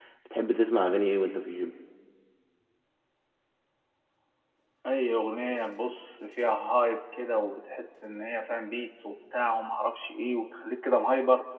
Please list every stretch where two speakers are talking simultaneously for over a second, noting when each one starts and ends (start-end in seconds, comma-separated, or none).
none